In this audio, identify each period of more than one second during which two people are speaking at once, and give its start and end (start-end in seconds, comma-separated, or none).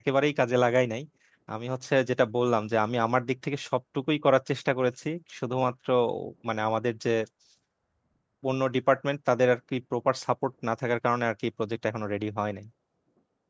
none